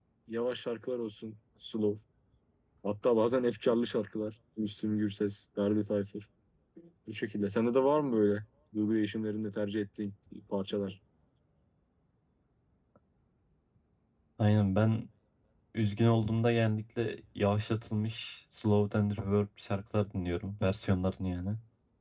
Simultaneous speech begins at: none

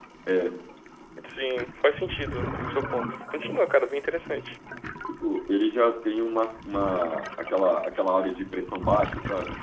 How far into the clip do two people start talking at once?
none

